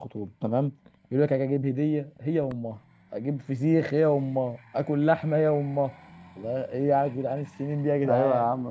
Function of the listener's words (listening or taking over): taking over